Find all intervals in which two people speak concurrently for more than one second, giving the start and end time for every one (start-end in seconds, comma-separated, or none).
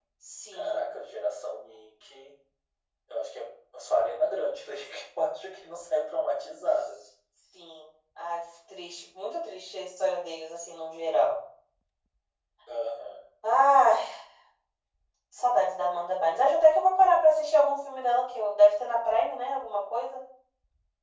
none